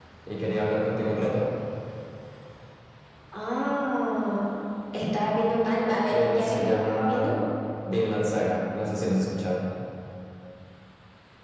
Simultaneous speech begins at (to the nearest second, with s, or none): 6 s